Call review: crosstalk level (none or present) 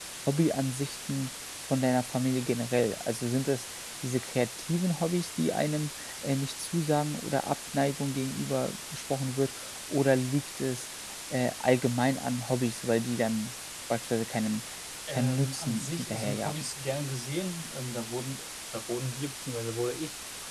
present